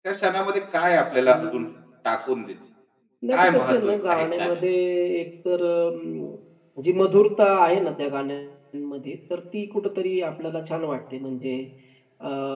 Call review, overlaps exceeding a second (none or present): present